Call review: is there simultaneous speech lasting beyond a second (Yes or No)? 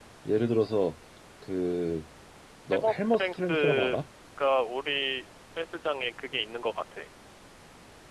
Yes